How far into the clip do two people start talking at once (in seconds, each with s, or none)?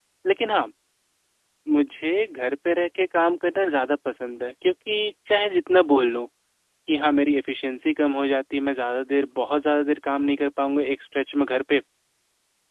none